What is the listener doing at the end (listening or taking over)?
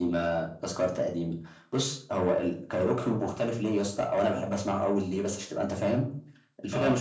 listening